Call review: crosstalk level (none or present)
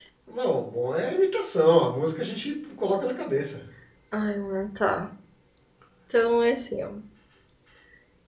none